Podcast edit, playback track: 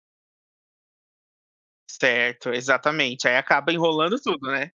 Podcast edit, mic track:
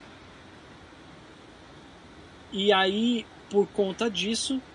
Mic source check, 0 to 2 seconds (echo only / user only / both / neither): neither